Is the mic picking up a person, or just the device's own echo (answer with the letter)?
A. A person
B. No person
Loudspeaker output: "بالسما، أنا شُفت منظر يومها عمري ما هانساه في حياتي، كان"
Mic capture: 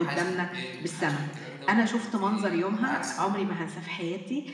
A